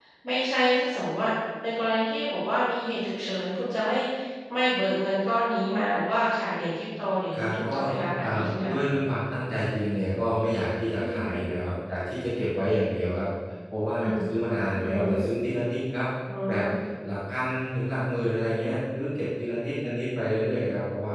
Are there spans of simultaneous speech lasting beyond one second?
No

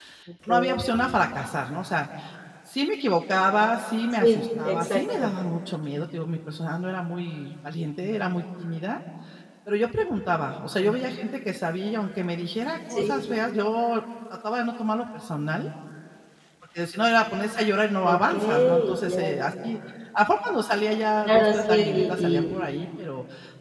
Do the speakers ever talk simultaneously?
Yes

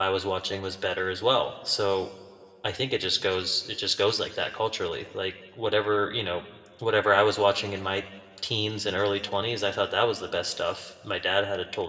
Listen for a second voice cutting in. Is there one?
No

